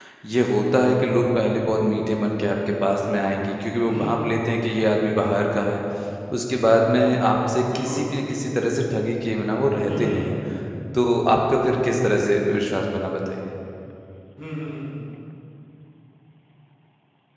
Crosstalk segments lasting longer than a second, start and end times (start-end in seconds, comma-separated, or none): none